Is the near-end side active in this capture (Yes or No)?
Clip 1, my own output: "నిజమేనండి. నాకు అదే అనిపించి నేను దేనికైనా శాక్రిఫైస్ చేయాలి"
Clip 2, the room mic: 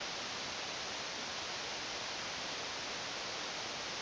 No